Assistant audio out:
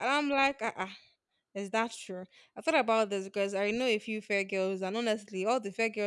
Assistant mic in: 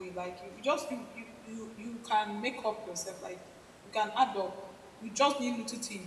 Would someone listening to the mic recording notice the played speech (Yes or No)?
No